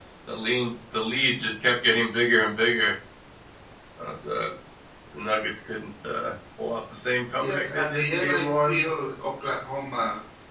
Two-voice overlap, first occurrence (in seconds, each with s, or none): 7.4 s